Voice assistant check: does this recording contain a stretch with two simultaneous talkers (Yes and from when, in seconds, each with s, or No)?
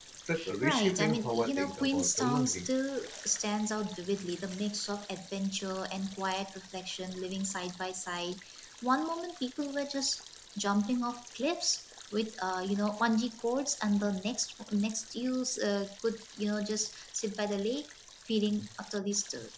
Yes, from 0.6 s